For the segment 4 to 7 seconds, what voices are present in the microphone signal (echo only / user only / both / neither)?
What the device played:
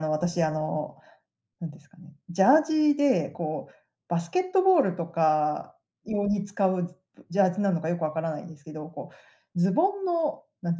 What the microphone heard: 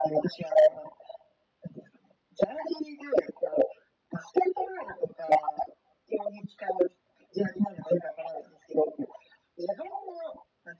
echo only